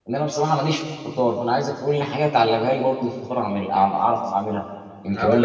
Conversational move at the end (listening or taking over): taking over